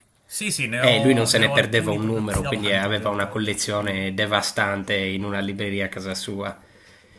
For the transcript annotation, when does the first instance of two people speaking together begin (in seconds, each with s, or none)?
0.8 s